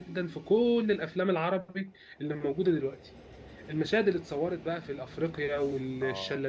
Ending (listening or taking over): listening